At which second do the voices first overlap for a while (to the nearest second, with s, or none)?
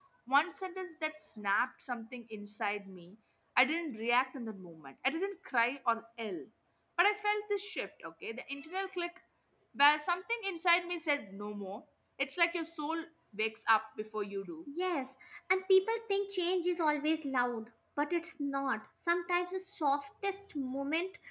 none